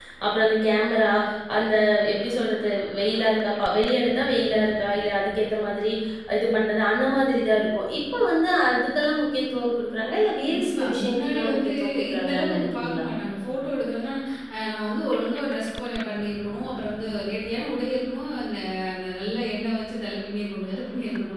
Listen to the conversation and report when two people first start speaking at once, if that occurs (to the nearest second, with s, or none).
10 s